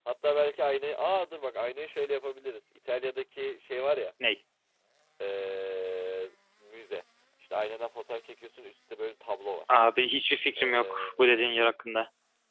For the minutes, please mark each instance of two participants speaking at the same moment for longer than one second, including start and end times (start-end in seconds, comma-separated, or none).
none